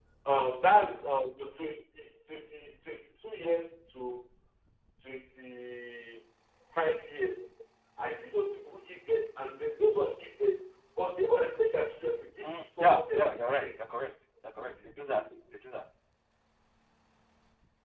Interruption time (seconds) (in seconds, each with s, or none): 12.4 s